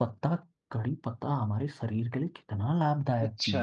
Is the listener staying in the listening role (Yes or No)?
No